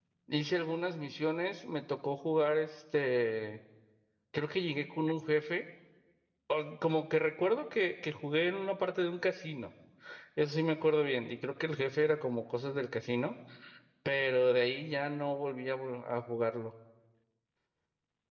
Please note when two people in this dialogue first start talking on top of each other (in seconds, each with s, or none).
none